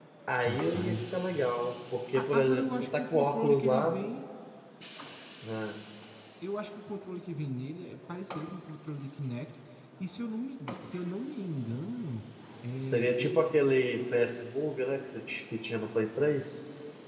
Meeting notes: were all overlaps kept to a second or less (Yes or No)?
No